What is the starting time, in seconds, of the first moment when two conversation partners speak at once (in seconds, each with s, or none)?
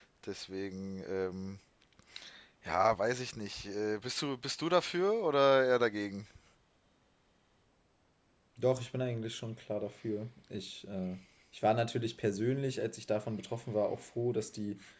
none